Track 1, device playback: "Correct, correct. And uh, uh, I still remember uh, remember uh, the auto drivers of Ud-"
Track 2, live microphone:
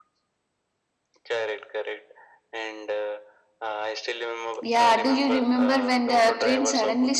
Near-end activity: present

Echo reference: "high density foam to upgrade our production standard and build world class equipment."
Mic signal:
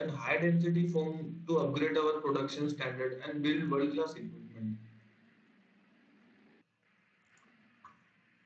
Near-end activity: none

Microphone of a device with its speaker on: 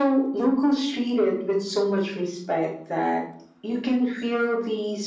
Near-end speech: none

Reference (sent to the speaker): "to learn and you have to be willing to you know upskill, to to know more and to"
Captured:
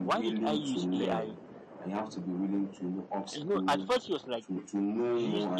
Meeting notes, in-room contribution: present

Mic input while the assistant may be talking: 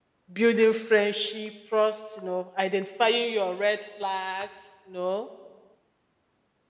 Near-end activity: present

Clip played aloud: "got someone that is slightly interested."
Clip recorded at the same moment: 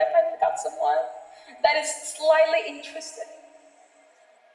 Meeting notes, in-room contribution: none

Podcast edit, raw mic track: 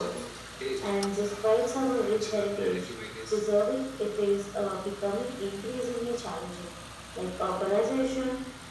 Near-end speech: none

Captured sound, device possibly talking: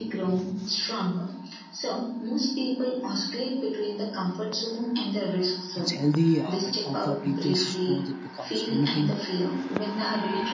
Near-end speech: present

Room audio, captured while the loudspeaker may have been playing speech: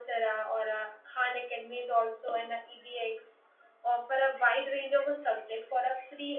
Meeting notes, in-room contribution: none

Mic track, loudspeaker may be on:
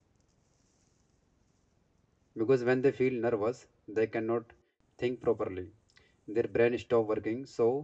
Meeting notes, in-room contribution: present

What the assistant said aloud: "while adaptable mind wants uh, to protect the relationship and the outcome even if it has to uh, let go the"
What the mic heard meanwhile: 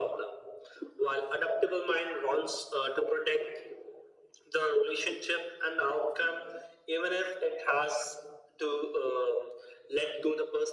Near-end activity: none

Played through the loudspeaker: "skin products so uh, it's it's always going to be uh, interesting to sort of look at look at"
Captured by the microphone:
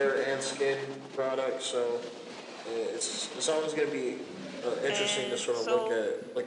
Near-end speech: present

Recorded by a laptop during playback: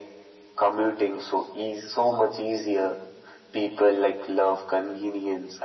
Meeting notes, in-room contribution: none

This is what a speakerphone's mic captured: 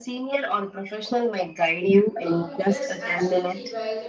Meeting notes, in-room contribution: present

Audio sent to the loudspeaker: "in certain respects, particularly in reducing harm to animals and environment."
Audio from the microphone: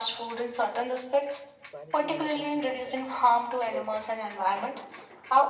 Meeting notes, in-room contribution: present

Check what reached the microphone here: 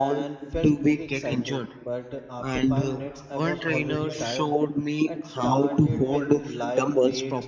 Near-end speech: present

